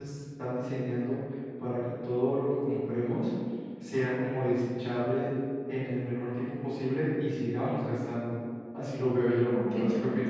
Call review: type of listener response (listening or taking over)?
taking over